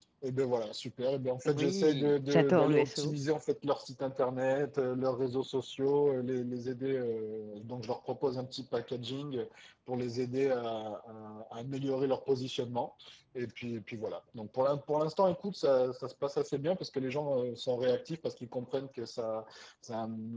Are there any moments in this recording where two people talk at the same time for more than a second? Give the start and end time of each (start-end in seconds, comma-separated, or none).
1.4-3.1